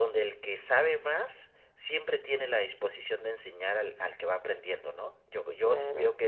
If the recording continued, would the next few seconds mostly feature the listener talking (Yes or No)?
Yes